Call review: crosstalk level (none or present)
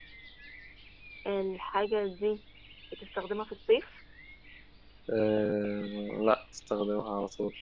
none